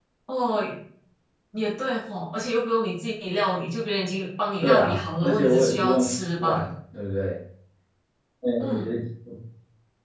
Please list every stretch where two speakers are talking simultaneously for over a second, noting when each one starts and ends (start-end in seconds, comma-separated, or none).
4.6-6.7